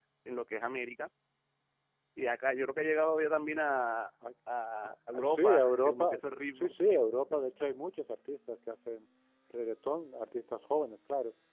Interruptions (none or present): present